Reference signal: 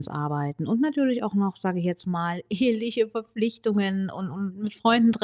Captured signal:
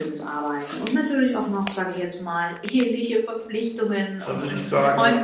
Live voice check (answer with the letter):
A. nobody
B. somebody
B